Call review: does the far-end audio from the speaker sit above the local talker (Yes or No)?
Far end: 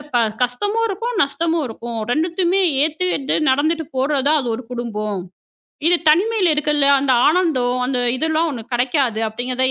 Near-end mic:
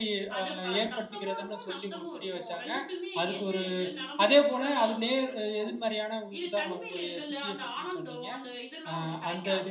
No